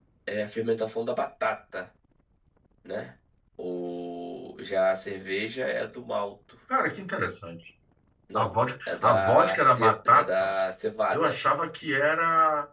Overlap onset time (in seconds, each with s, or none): 8.3 s